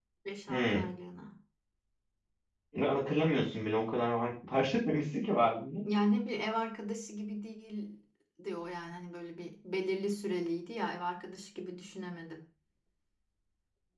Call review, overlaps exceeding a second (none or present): none